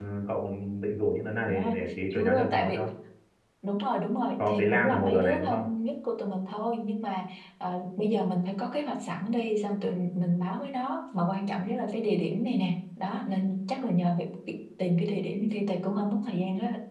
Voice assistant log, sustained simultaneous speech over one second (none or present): present